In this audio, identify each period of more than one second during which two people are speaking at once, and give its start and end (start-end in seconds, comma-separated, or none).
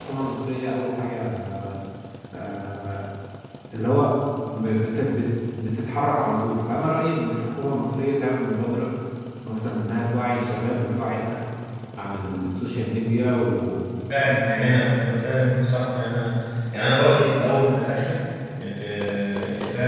none